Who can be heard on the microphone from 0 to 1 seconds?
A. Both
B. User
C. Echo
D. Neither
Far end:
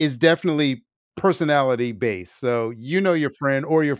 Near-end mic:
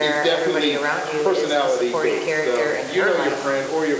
A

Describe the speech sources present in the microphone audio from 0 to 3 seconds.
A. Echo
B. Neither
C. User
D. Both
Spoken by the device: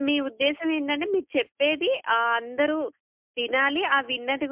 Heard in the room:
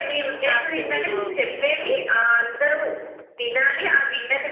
D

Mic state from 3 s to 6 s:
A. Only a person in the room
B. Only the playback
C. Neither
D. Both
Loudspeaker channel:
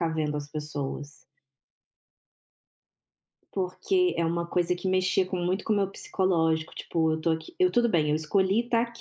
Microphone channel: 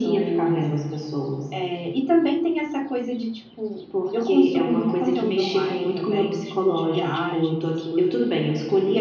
D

